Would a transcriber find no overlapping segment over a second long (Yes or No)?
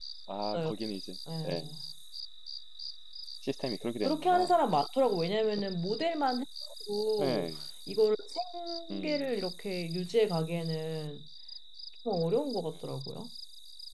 Yes